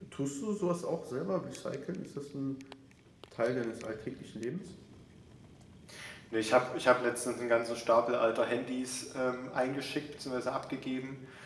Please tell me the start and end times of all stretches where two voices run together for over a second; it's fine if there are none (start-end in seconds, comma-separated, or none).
none